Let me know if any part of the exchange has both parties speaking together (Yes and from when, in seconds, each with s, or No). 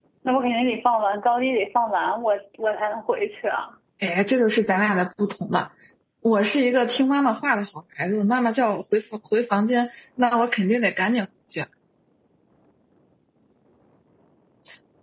No